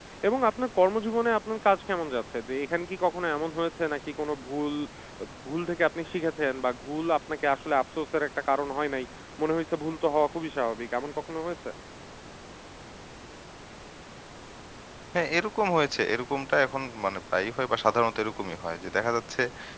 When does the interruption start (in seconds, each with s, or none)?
none